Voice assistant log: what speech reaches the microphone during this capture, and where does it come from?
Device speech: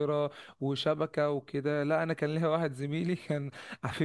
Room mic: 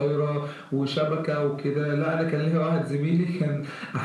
echo only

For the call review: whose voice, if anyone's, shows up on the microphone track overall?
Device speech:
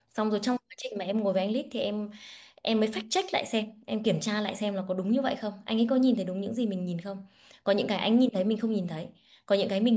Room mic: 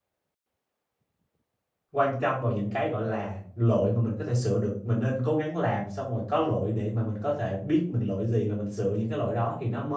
user only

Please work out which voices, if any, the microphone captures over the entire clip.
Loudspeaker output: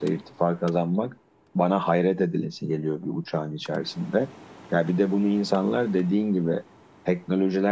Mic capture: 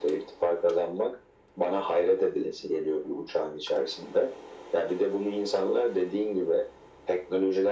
echo only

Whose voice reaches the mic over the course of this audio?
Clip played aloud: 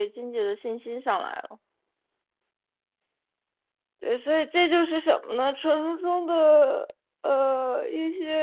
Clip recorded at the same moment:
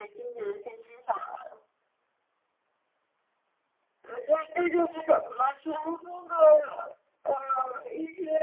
echo only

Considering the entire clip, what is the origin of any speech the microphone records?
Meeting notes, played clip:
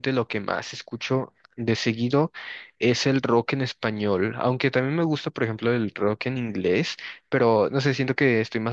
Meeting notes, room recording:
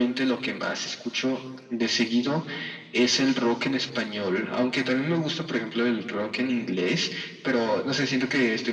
echo only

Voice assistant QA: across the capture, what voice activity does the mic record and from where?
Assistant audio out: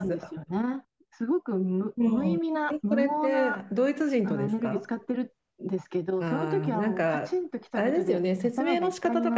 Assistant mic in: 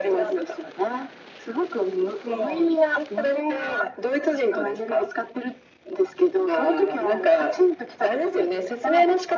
echo only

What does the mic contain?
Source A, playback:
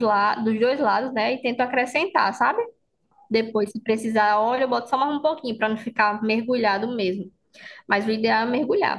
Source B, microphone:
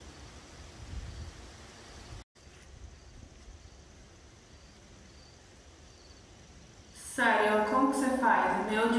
user only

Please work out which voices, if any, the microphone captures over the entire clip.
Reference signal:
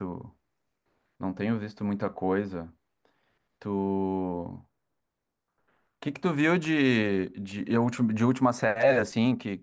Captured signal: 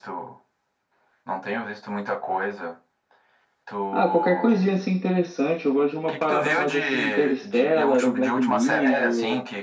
both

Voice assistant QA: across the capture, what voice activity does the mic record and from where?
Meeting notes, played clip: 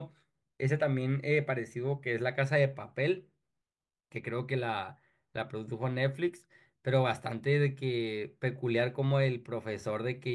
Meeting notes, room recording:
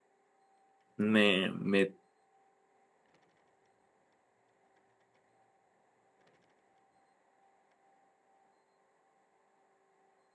user only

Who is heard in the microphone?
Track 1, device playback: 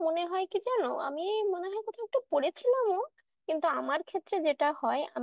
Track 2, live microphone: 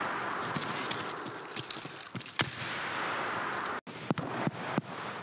neither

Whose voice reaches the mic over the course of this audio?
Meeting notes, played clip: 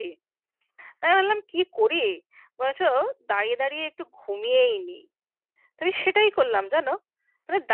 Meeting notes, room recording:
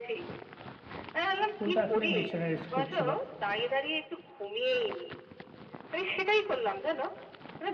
both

